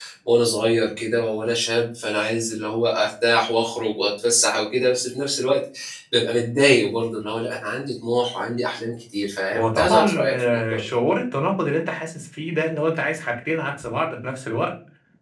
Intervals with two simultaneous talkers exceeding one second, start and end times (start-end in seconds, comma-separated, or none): 9.5-10.9